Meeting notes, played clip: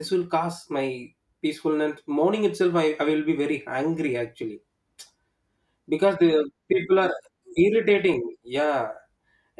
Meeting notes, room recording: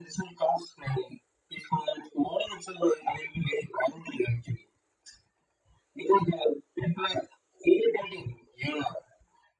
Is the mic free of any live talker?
Yes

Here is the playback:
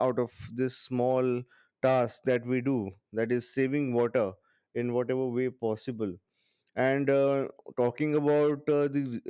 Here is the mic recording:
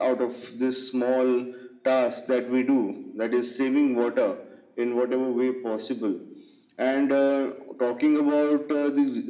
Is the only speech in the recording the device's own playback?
Yes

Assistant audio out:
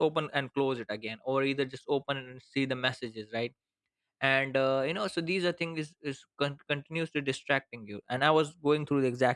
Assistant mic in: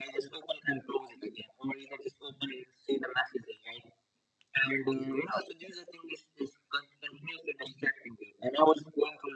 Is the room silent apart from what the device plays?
Yes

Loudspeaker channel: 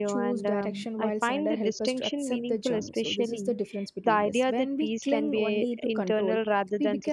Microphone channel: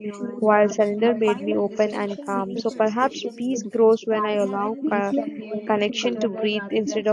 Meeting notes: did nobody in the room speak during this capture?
No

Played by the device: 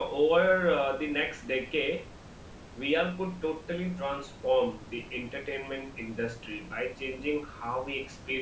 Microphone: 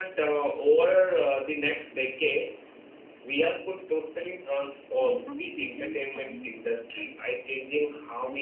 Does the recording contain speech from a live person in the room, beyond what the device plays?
Yes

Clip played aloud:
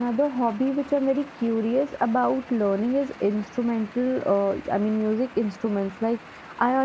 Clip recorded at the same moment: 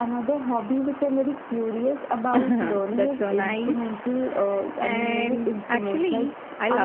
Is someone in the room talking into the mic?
Yes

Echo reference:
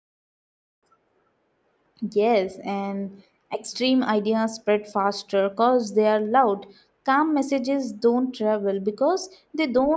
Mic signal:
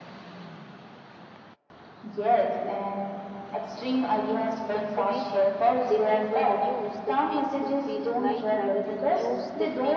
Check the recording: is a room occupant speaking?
Yes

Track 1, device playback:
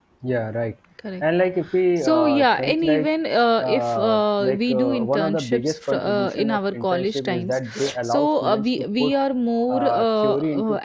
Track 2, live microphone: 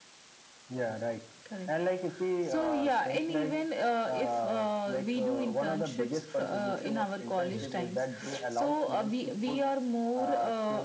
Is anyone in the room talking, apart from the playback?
Yes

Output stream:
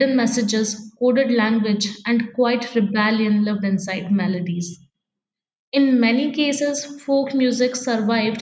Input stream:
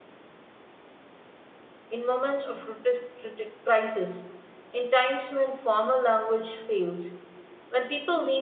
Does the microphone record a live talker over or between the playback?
Yes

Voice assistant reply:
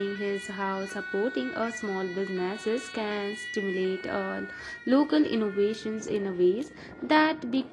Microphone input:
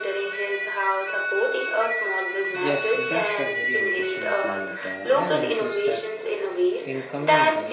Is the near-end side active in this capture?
Yes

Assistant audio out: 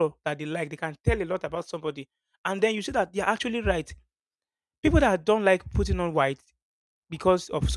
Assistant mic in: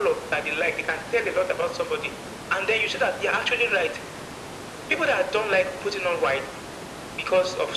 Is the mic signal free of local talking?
Yes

